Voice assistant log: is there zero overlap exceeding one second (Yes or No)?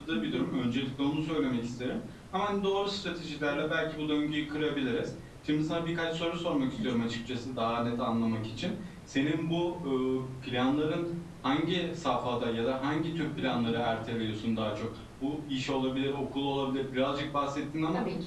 Yes